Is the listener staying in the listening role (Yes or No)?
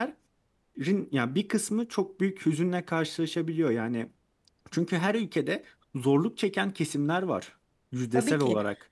No